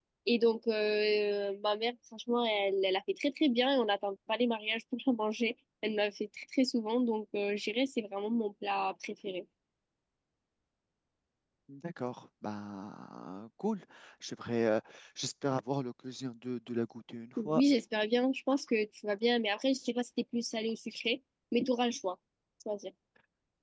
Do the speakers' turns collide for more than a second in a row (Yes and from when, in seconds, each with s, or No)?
No